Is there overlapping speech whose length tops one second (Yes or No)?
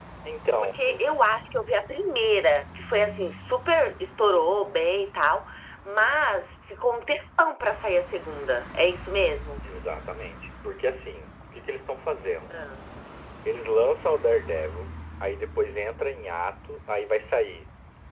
No